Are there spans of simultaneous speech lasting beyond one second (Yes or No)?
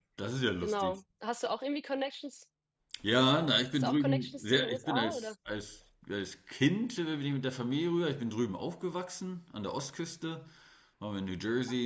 Yes